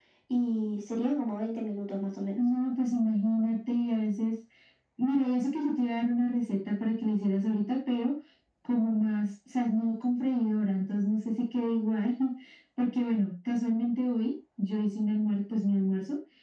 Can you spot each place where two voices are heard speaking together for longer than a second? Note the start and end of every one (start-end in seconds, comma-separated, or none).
none